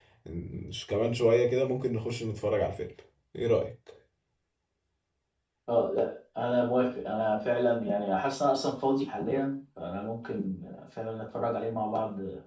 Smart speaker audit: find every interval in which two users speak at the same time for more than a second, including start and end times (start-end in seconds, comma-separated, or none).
none